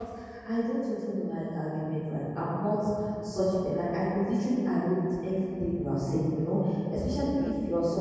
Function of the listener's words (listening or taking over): listening